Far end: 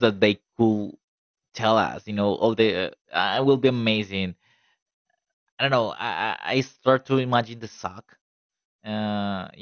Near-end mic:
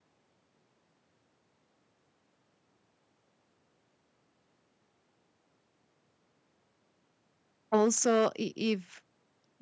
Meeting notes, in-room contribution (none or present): present